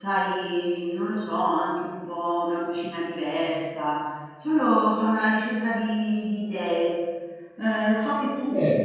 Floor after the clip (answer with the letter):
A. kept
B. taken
A